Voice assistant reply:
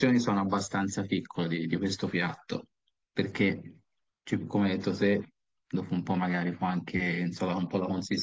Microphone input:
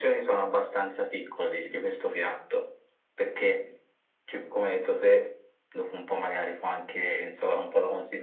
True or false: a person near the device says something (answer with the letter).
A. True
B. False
B